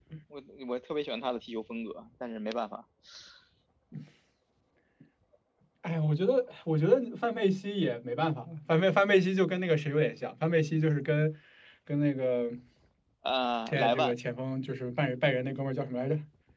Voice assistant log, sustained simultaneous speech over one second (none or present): none